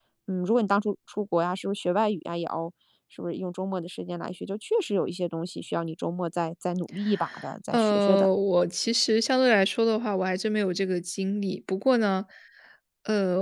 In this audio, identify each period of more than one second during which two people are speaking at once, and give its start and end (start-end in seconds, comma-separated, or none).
none